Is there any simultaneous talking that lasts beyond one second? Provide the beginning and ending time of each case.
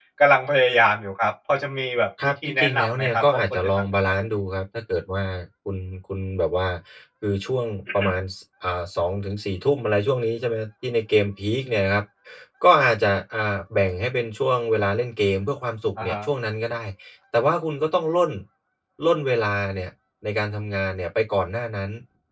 2.2-4.2

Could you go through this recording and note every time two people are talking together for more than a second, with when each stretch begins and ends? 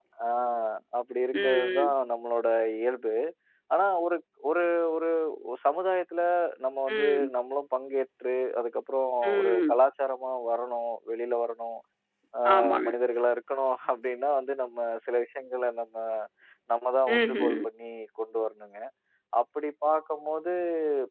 none

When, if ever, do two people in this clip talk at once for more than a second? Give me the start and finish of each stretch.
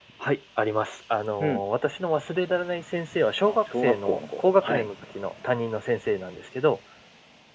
3.5-4.9

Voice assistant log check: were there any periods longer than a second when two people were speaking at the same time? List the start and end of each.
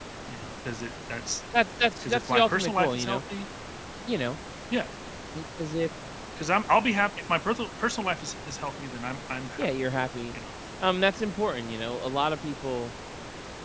2.0-3.2

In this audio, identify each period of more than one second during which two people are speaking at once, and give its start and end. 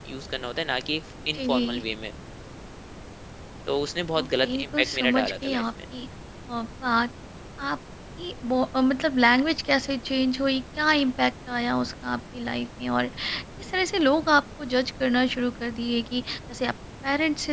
4.2-5.6

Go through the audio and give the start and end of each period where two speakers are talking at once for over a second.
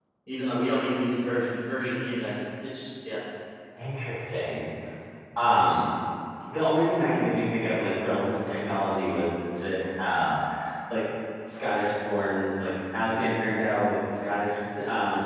none

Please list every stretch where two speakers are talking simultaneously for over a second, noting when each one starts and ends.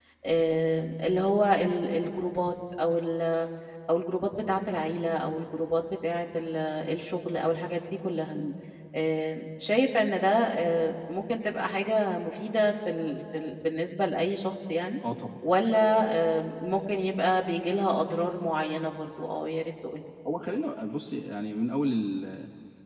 none

